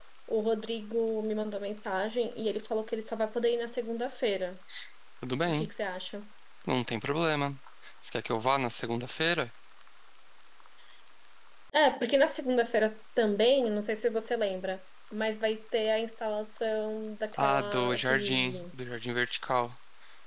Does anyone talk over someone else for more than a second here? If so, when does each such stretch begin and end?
17.4-18.6

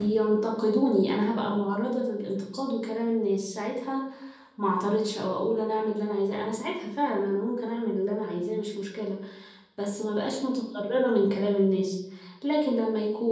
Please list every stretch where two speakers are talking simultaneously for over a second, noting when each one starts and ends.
none

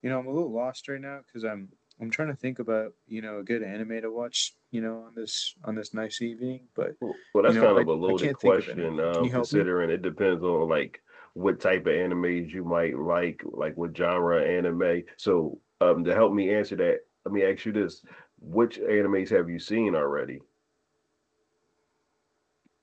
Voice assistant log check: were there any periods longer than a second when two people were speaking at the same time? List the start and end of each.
7.5-9.6

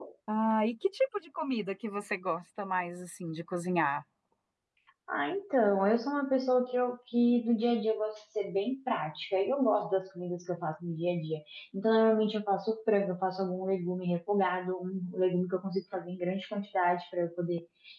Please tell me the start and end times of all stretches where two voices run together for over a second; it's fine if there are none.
none

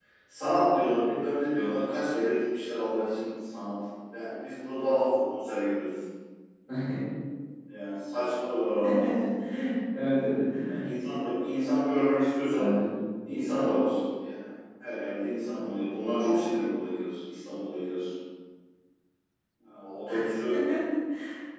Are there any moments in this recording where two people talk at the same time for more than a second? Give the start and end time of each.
none

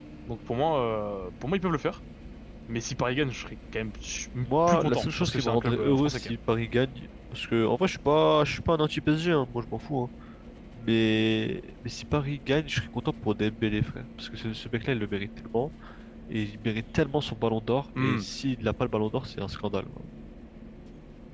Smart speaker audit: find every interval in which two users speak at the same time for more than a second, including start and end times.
4.7-6.3

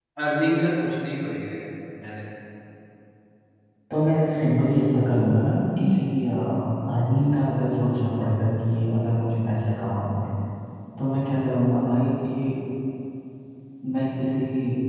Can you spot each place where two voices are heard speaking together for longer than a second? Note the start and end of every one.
none

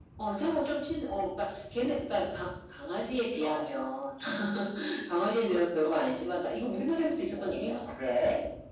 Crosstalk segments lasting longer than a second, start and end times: none

